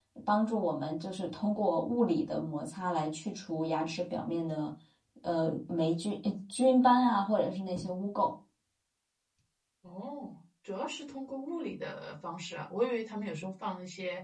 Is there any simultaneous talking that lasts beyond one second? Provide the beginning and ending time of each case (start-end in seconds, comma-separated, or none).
none